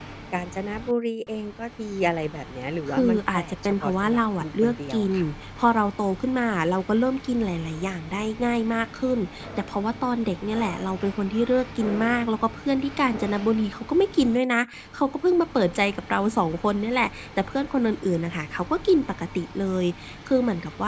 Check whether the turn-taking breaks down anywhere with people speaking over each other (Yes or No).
Yes